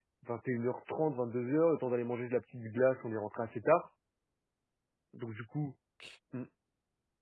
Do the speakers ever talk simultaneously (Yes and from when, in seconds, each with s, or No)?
No